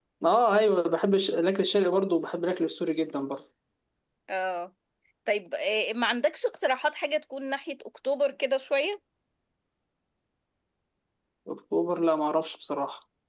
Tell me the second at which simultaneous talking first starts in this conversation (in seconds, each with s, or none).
none